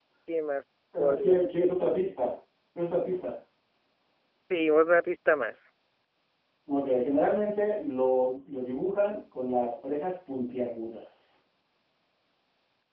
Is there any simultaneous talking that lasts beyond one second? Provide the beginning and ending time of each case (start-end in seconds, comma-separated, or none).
none